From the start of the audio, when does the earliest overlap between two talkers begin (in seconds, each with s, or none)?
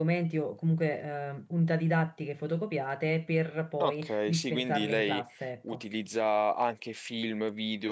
3.8 s